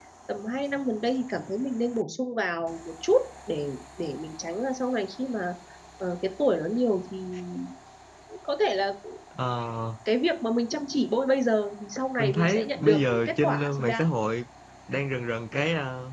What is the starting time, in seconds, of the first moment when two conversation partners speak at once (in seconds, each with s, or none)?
12.2 s